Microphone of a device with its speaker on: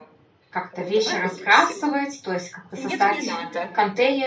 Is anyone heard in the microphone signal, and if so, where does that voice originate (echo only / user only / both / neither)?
both